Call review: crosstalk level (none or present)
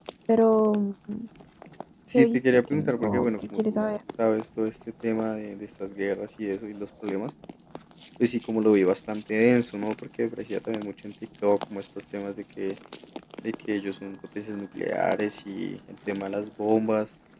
present